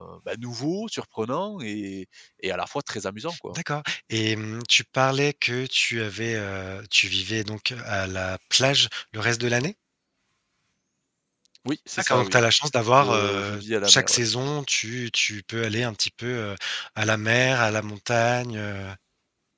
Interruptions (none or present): present